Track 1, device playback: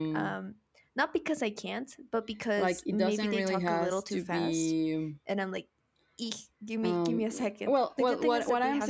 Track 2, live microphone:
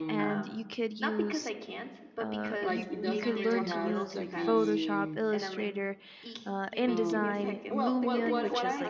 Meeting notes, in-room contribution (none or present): present